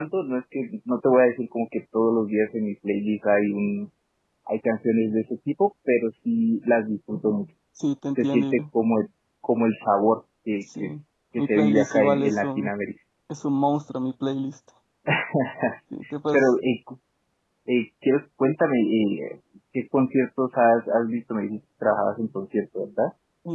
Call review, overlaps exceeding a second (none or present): present